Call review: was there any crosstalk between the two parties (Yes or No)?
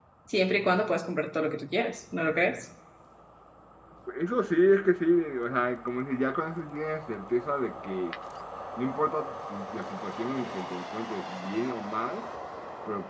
No